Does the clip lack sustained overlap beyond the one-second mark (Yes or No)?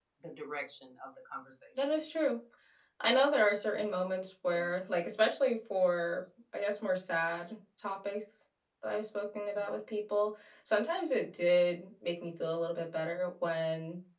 Yes